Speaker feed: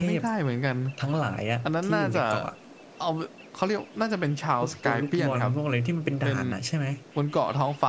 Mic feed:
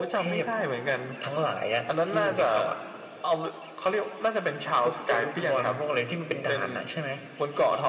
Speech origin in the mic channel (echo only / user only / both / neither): echo only